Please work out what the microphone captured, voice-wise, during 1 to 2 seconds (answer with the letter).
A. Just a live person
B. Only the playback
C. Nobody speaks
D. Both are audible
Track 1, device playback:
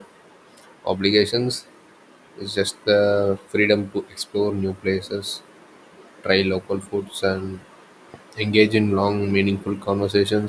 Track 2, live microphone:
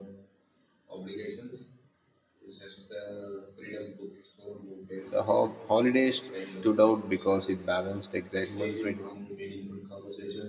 B